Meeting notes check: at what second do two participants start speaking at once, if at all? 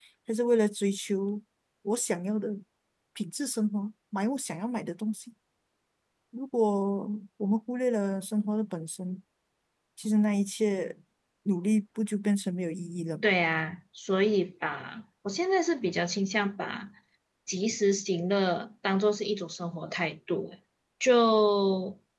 none

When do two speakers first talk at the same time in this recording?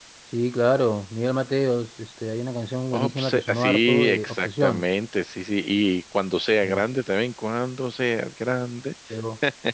2.9 s

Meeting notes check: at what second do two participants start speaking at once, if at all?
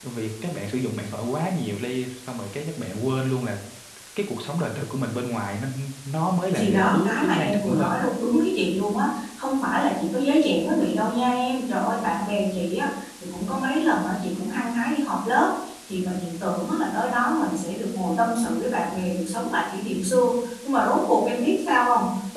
6.6 s

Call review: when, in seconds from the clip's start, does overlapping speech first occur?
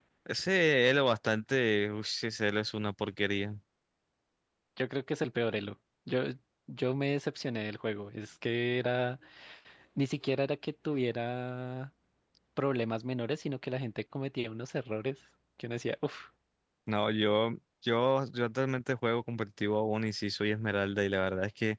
none

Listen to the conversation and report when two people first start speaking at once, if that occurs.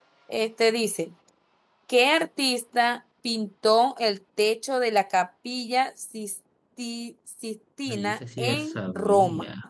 7.9 s

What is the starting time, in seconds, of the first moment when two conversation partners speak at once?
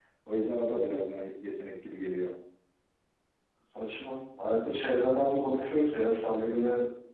none

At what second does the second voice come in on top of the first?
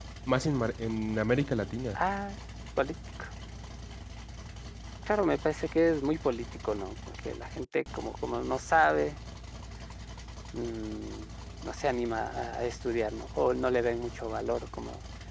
none

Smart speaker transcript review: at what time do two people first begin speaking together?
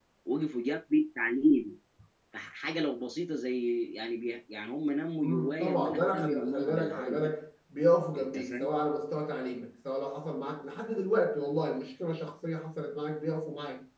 5.2 s

